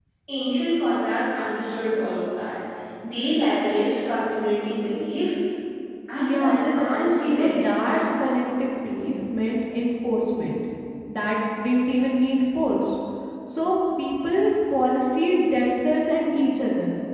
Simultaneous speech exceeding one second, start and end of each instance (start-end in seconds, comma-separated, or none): 6.2-8.0